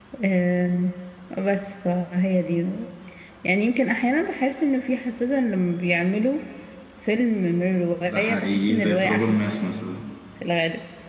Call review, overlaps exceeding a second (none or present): present